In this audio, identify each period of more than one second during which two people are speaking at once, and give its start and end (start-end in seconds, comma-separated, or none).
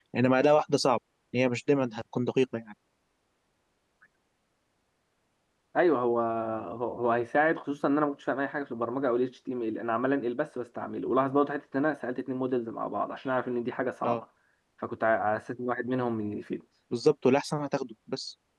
none